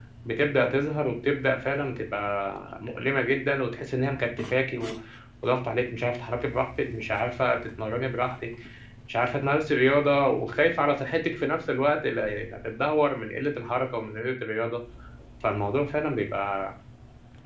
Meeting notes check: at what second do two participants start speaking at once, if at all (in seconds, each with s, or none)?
none